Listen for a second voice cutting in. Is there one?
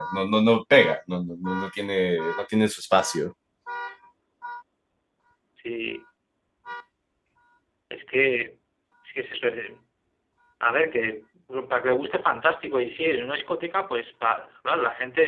No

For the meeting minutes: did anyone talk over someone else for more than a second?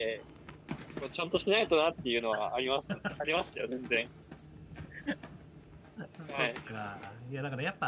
No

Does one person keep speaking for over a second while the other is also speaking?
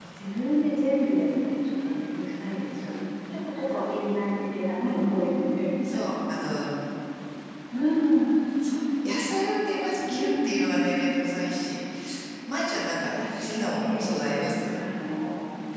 Yes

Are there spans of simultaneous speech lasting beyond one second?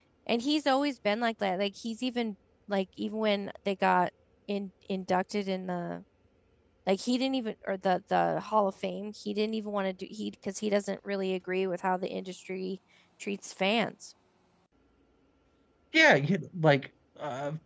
No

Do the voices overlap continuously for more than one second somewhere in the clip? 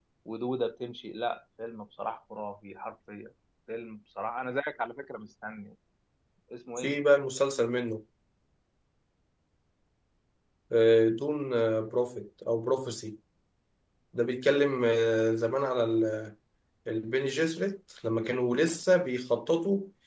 No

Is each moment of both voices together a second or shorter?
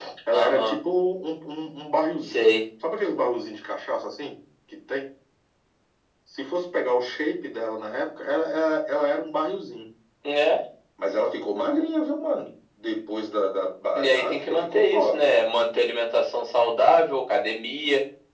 No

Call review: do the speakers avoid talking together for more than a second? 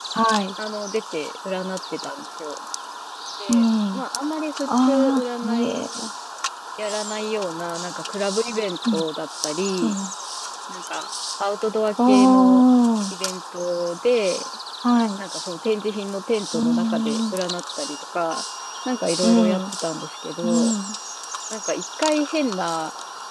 No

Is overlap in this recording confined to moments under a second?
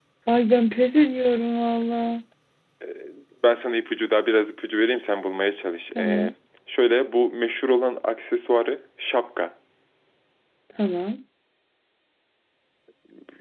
Yes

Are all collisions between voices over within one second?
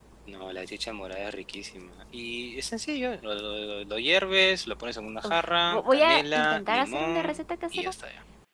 No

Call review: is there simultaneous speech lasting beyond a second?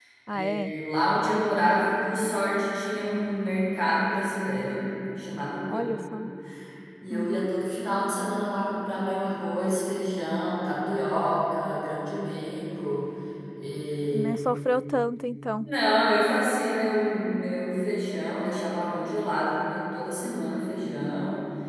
No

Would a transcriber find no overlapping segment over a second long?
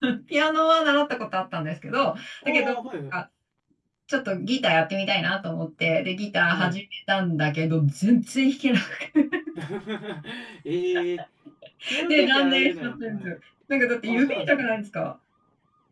No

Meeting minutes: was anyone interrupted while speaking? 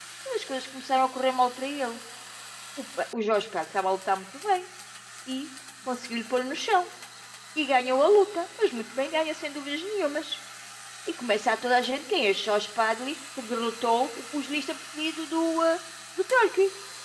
No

